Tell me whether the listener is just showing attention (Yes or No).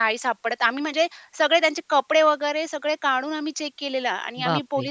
Yes